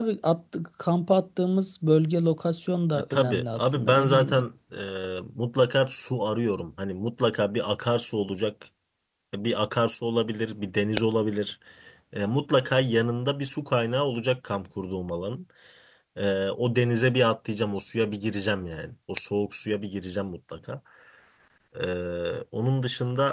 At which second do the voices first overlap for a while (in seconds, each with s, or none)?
2.9 s